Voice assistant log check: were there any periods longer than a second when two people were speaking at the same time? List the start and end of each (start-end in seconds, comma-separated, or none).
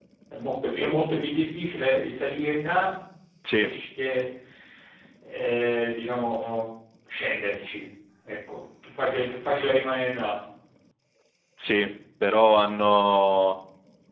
none